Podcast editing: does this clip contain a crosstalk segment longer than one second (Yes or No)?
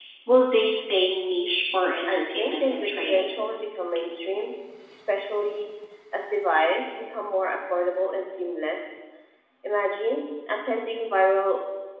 Yes